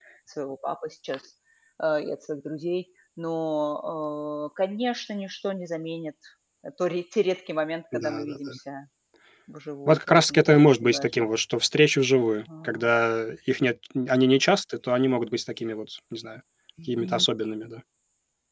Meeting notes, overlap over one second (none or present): present